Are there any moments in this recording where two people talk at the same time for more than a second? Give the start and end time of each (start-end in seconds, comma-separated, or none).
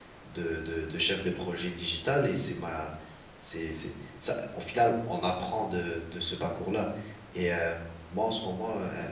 none